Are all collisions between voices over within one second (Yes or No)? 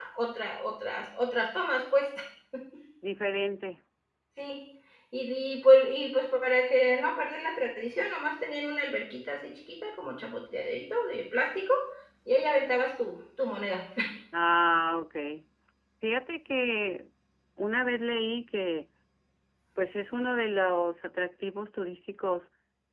Yes